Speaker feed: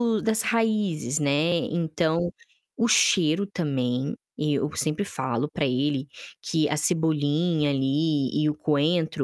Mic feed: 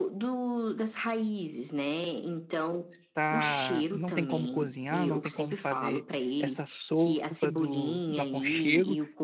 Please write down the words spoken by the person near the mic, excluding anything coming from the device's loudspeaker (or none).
tá não tem como cozinhar, não tem como fazer essa sopa do do aconchego.